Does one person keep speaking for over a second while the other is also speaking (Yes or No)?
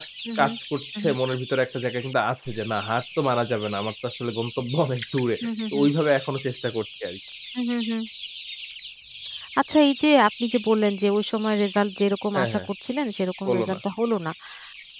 No